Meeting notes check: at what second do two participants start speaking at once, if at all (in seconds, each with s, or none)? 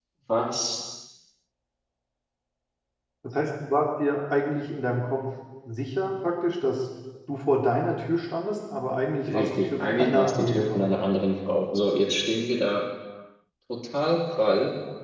9.3 s